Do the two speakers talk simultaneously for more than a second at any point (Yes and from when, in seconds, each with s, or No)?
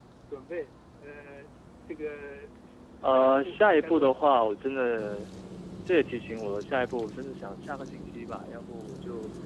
Yes, from 3.0 s